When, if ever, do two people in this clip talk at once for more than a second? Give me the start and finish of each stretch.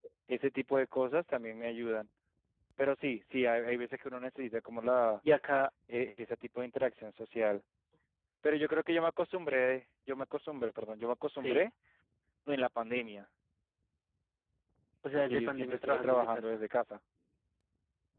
15.2-16.6

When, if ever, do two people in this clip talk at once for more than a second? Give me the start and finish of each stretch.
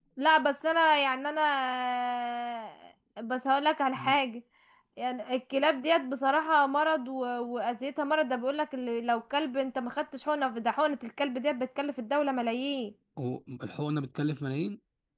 none

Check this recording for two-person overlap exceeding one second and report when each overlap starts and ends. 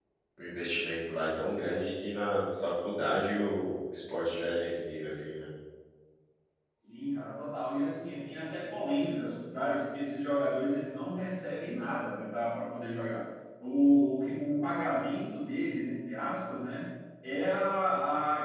none

